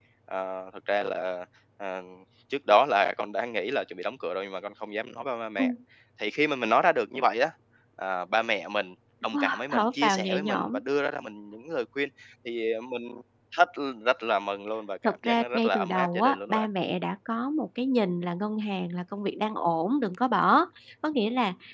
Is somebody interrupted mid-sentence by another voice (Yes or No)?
Yes